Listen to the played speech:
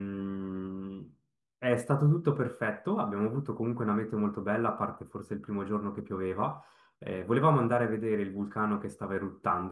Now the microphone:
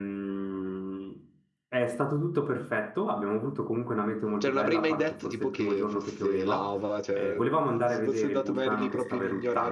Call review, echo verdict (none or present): present